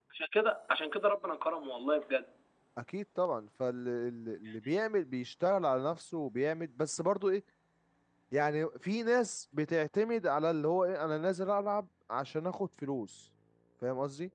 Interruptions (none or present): none